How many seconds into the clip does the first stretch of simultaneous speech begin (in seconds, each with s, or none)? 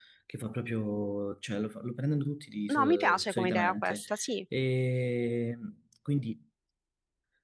2.7 s